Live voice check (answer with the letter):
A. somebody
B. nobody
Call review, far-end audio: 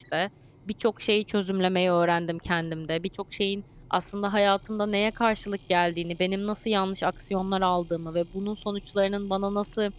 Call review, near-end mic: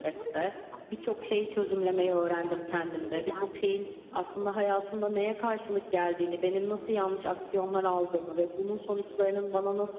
A